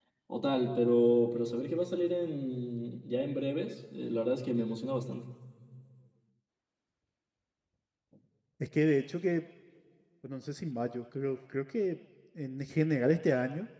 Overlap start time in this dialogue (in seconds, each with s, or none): none